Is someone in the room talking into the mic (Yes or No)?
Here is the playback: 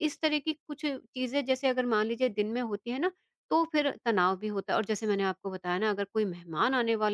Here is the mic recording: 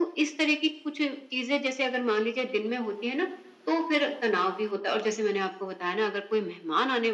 No